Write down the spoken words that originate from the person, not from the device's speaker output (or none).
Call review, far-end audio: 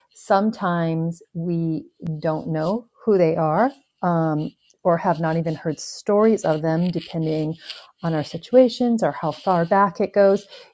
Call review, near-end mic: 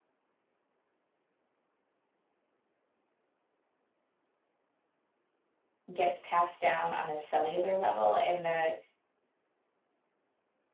gets passed down on a cellular level. And the